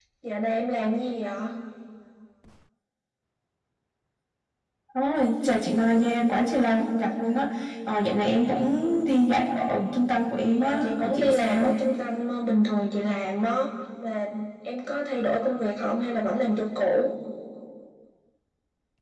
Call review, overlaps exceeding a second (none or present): present